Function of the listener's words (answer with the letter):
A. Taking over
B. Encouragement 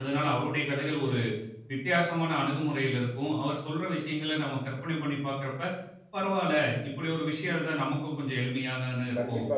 A